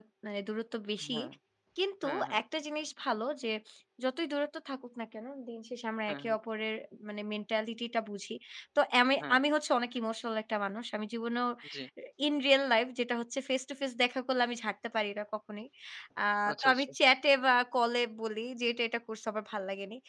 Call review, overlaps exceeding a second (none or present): none